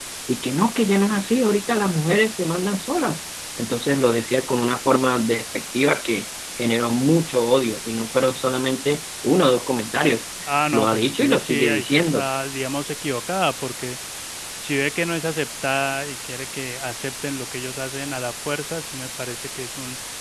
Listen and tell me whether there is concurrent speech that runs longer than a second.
Yes, from 10.7 s

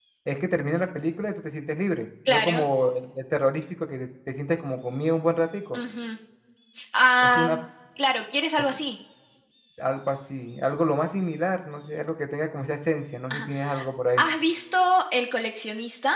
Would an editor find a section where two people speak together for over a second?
No

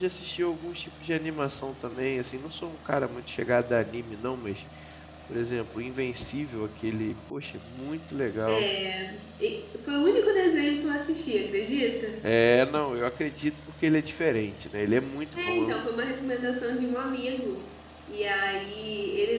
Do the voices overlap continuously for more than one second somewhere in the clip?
No

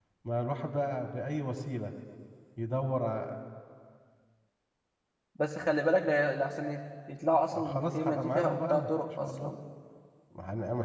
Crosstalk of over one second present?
Yes, from 7.5 s

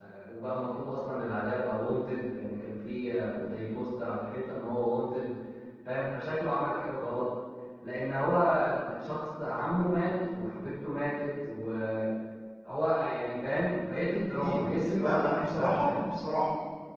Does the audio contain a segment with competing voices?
Yes, from 14.2 s

